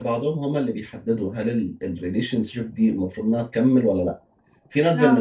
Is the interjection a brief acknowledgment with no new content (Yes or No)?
Yes